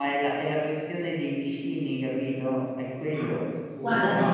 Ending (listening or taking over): taking over